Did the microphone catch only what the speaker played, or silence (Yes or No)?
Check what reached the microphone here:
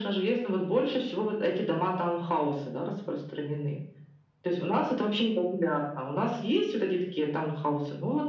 Yes